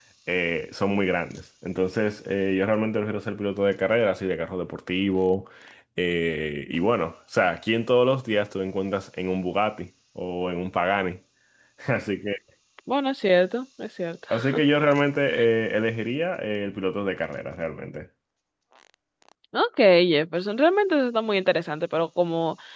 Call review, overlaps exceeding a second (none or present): none